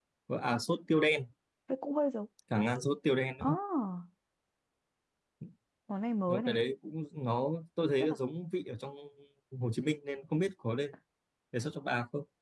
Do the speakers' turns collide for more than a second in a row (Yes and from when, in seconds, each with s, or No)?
No